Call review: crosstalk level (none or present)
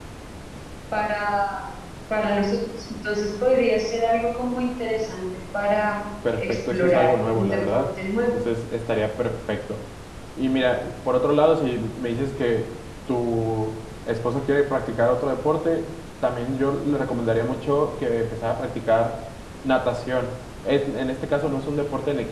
present